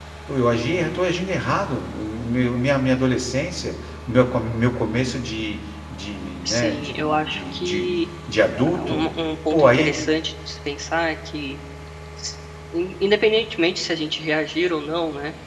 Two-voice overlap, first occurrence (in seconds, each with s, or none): 6.5 s